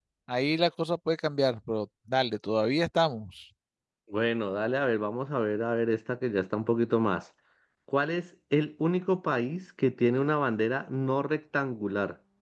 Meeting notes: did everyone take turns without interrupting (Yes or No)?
Yes